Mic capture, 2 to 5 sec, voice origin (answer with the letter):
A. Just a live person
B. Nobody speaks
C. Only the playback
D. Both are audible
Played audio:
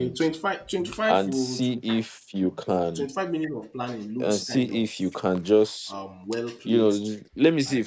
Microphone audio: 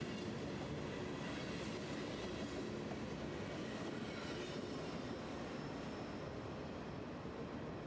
B